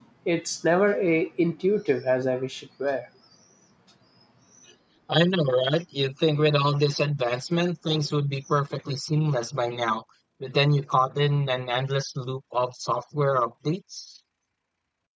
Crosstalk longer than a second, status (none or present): none